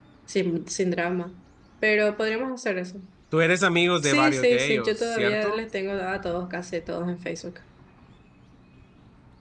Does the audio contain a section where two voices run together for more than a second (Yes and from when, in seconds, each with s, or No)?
Yes, from 4.0 s